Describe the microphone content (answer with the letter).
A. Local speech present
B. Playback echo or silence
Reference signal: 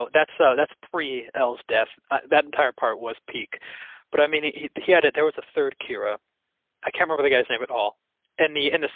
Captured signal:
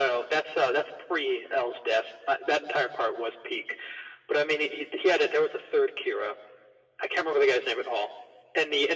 B